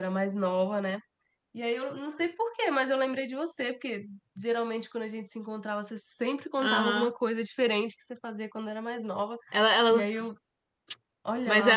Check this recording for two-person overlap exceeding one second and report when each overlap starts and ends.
none

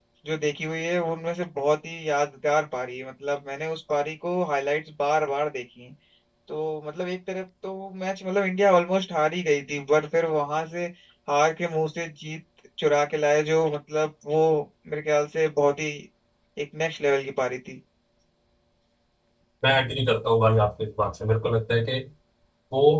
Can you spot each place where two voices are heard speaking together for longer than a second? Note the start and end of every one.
none

